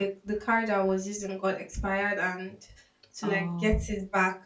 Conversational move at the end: listening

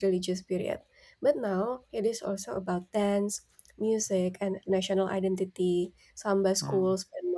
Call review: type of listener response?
listening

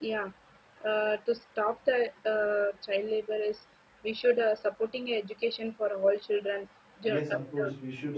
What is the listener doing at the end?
taking over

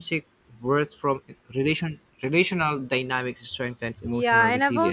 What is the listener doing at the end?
taking over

